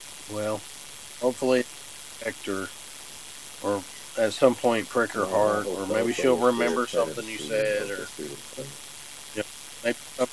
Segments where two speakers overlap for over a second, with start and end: 5.2-7.9

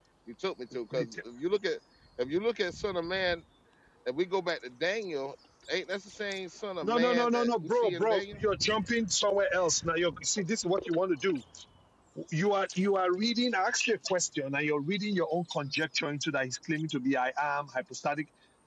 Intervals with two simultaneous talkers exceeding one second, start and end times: 6.8-8.4

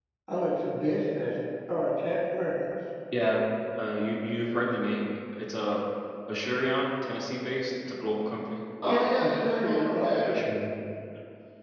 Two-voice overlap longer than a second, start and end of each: 8.8-10.5

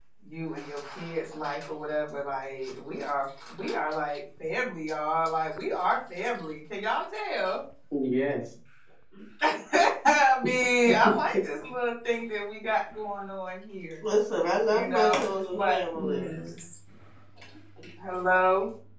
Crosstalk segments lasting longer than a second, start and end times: 14.7-16.3

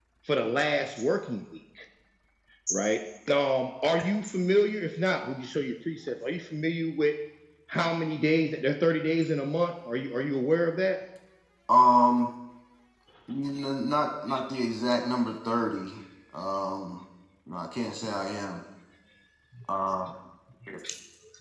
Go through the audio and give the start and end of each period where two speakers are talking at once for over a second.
none

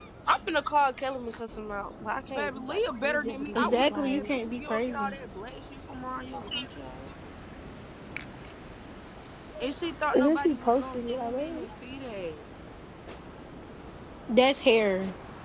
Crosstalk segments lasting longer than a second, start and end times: 2.3-5.1, 10.1-11.7

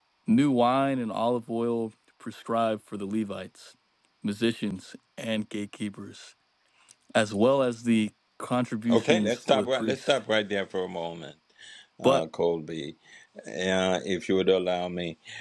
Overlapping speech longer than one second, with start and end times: 8.9-10.1

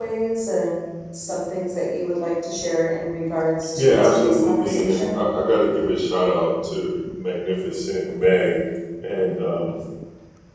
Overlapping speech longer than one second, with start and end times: 3.8-5.2

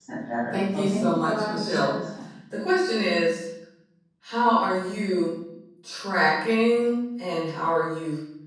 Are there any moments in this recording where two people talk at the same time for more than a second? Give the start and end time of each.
0.5-1.9

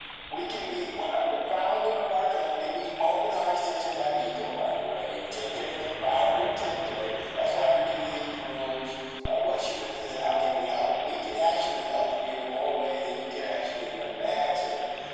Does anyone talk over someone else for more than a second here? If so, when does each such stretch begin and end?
none

